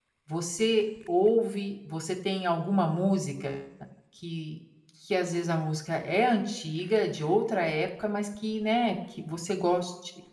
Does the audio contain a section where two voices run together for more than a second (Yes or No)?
No